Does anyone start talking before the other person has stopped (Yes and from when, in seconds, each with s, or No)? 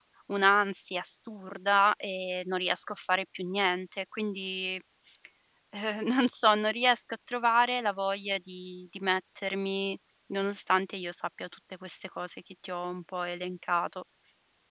No